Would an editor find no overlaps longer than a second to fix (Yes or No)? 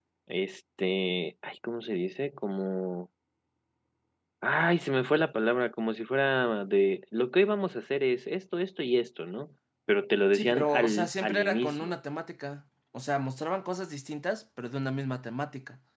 No